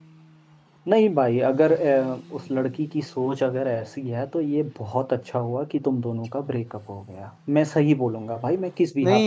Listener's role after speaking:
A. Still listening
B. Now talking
B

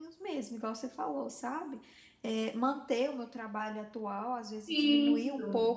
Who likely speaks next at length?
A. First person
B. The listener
A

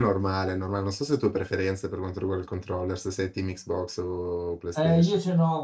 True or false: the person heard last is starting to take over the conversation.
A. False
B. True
B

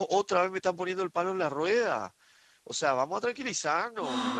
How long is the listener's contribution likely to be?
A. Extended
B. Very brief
A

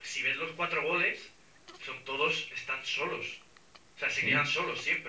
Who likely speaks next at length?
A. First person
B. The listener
A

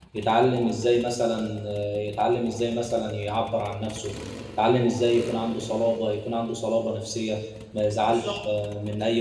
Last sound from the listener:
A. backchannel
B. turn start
A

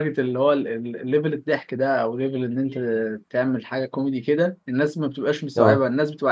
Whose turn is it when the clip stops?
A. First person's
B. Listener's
A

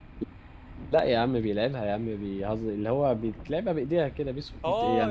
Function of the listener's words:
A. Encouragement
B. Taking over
B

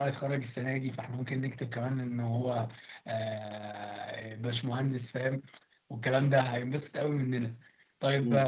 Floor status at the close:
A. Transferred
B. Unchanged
B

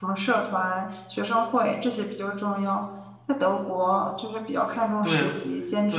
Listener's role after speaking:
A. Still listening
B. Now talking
B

